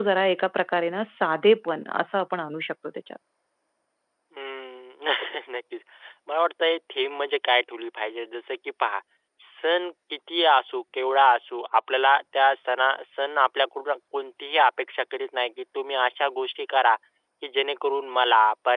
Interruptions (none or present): none